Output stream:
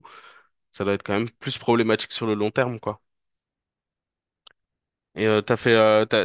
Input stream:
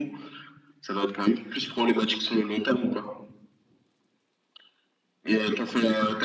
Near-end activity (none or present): none